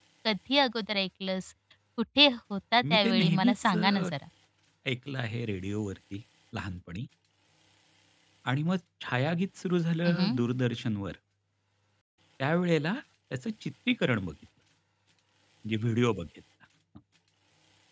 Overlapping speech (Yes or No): Yes